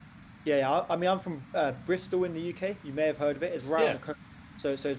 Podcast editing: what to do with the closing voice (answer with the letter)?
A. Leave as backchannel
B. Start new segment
A